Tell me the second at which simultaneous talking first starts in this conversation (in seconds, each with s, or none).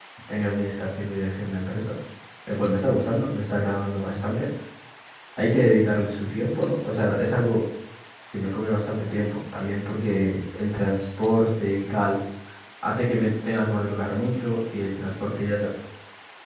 none